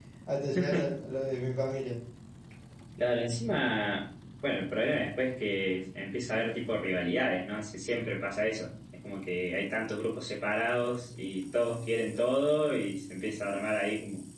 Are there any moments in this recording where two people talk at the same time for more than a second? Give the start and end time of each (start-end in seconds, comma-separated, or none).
none